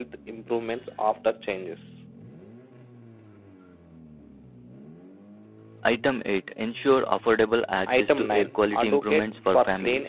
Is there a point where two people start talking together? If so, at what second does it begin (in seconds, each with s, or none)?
7.9 s